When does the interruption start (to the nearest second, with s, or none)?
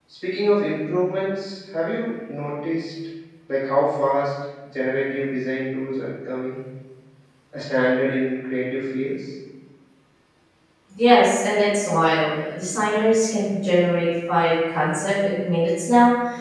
none